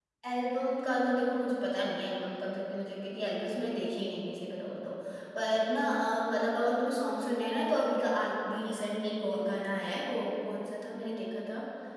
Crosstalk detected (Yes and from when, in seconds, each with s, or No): No